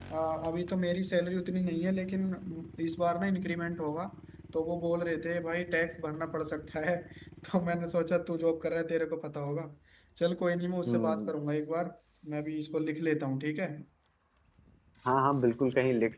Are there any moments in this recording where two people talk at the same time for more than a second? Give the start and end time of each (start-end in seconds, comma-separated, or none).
none